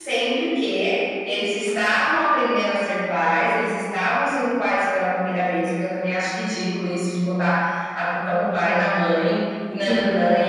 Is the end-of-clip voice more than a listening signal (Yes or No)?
No